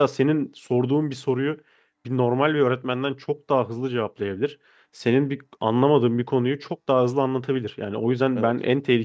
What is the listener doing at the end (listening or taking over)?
listening